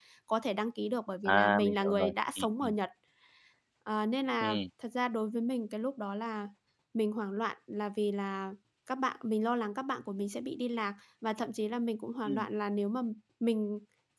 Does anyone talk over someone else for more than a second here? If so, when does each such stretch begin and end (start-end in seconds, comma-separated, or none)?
1.2-2.7